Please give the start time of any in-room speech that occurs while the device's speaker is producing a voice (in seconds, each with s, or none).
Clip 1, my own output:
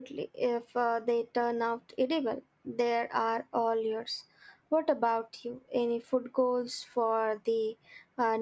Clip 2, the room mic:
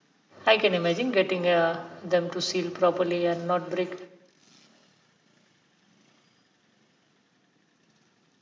0.4 s